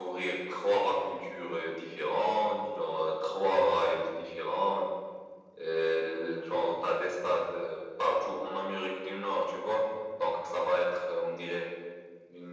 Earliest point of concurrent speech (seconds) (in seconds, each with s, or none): none